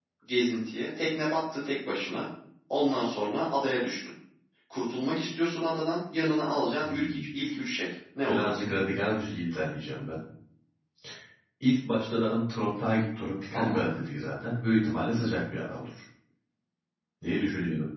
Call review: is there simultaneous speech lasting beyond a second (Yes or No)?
No